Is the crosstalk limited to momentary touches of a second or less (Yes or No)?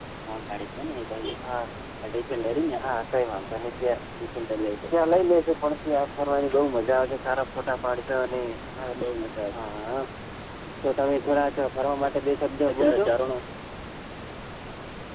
Yes